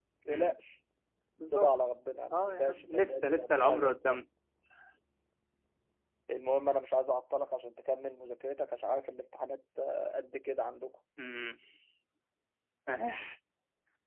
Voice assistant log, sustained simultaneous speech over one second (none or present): present